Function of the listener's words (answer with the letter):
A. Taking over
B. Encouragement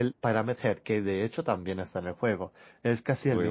B